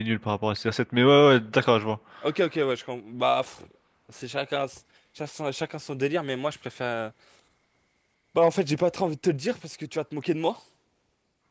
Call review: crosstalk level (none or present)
none